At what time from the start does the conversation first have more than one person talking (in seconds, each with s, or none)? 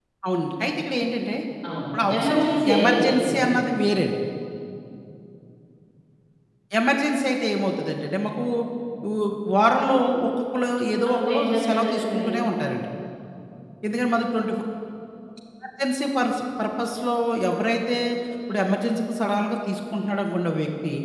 2.1 s